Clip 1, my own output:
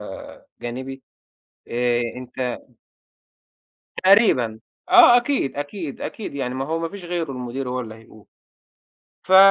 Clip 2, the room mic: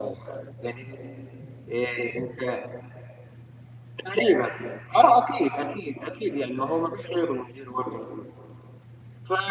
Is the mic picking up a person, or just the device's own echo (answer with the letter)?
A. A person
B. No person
B